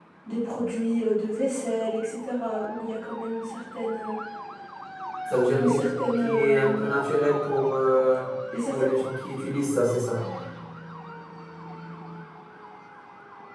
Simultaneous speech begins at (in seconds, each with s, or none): 5.5 s